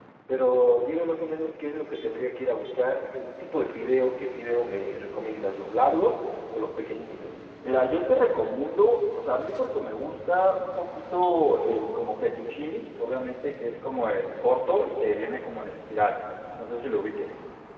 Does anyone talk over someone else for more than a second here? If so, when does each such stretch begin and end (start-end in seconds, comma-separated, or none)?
none